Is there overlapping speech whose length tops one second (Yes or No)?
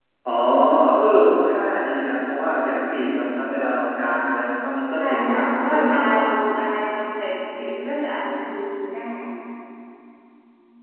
Yes